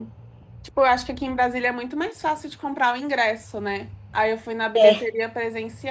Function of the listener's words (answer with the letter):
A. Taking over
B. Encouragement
B